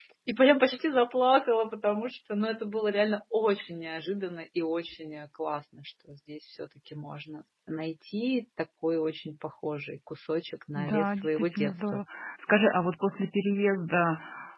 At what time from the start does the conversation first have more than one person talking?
10.8 s

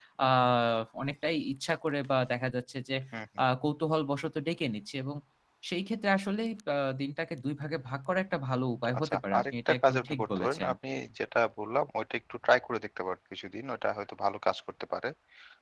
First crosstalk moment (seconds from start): 8.9 s

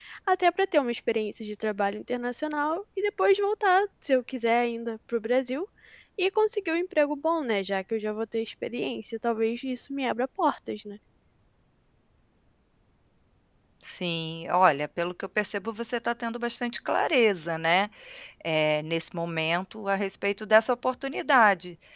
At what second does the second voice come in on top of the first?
none

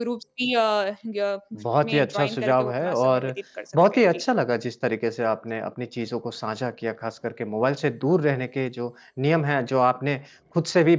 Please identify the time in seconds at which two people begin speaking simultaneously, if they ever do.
1.8 s

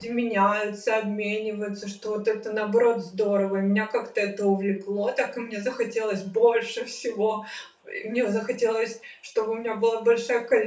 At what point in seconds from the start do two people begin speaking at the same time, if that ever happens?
none

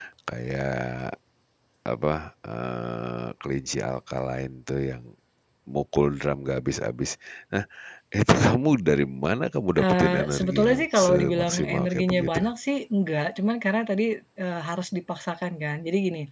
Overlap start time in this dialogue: 9.8 s

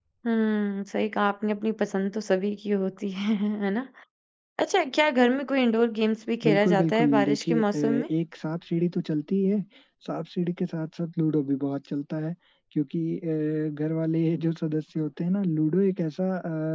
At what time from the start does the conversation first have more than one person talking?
6.4 s

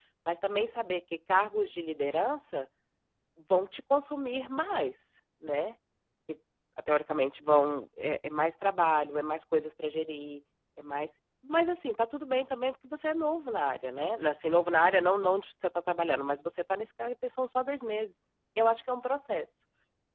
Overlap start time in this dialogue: none

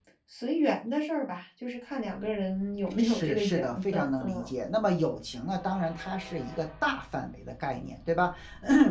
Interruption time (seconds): 3.0 s

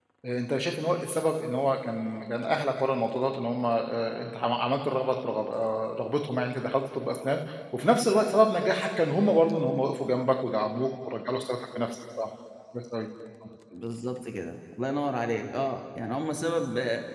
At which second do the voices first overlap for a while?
none

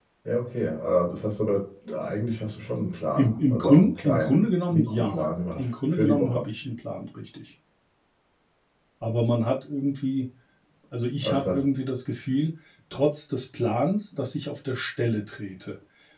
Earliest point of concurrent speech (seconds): 3.2 s

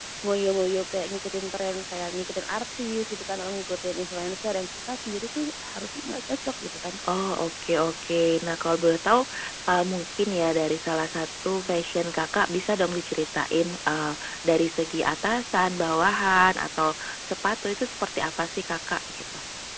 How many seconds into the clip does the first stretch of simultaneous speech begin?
none

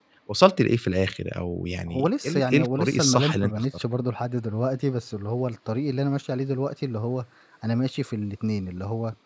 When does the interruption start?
1.9 s

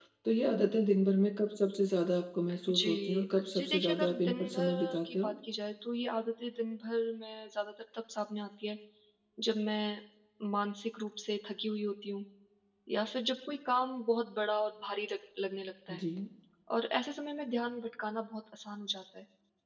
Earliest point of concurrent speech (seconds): 2.7 s

